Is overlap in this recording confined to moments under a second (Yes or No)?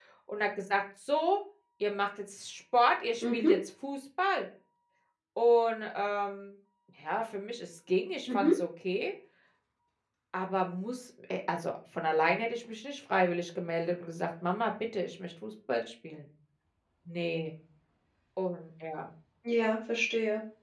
Yes